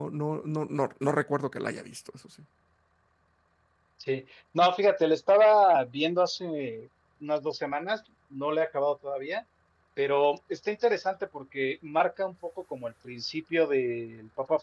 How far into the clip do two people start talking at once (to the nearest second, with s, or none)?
none